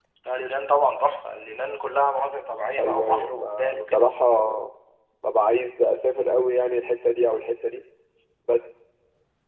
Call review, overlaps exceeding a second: present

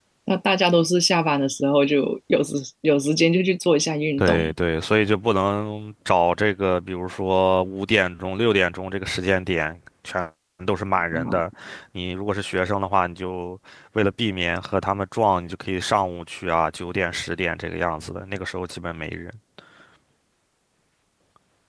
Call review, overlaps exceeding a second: none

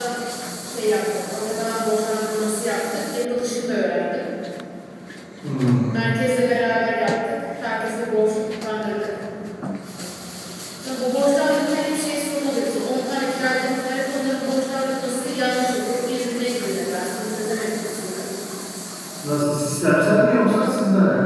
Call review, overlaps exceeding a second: none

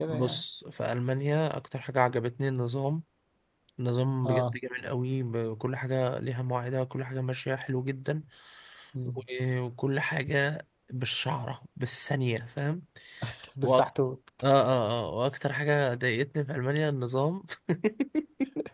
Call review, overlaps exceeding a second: none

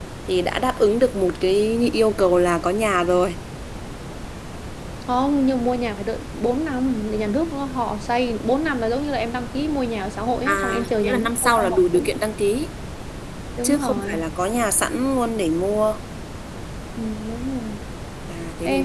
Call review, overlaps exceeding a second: present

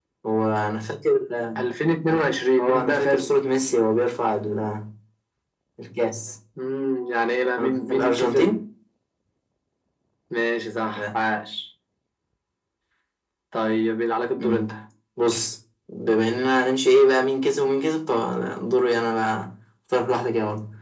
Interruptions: present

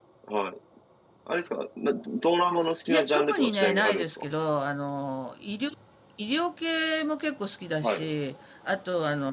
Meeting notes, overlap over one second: present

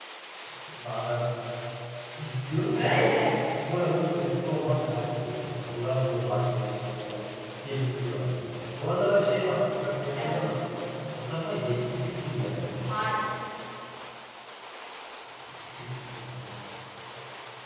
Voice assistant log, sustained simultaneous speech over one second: none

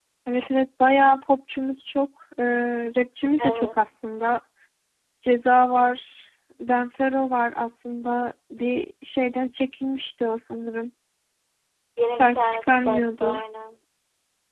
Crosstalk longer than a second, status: present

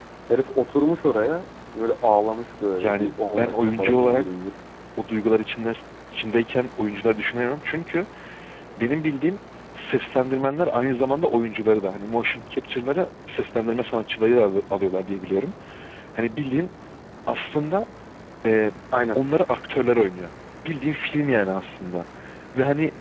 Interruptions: present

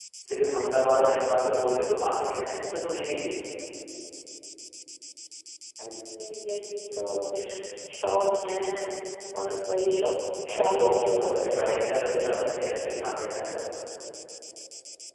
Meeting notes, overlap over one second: present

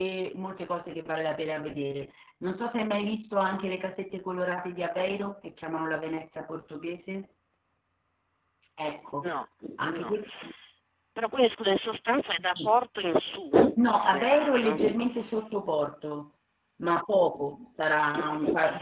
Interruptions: present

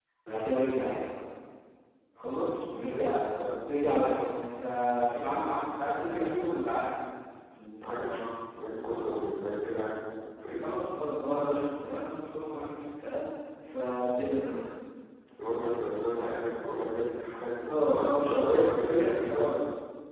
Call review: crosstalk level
present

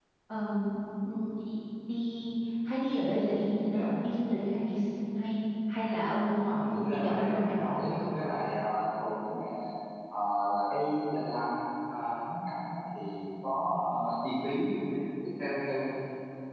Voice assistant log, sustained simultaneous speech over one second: present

